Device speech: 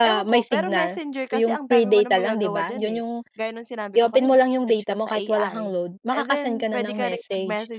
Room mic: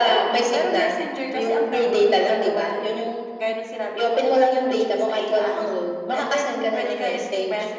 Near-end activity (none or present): none